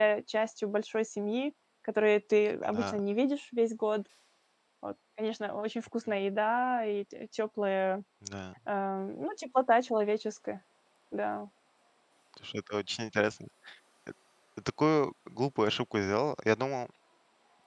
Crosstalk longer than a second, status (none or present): none